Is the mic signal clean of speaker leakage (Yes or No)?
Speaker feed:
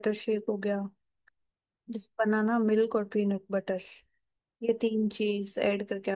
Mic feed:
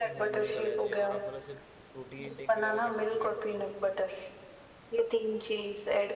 No